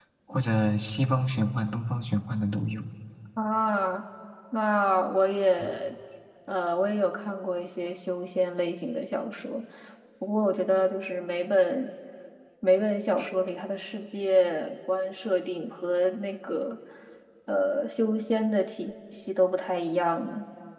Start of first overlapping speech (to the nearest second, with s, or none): none